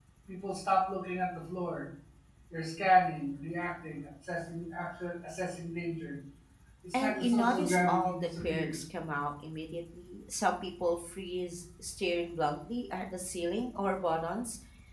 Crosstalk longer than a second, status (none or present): present